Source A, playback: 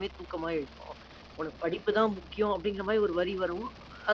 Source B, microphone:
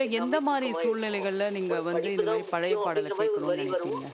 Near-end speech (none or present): present